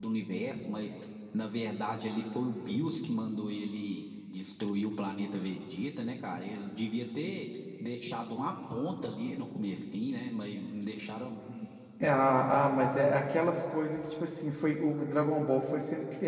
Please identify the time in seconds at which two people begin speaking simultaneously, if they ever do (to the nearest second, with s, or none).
none